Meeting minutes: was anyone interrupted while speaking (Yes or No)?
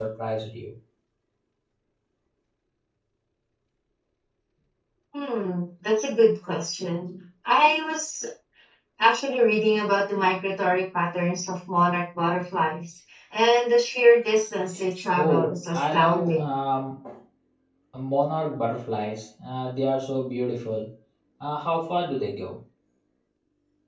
Yes